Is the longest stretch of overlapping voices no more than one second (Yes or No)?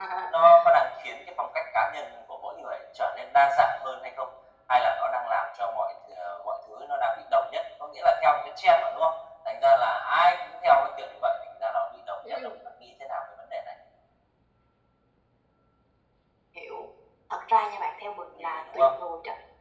Yes